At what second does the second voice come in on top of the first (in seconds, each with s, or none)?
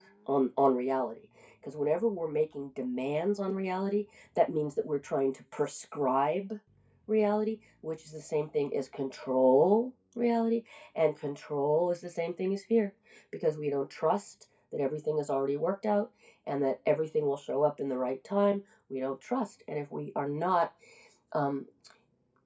none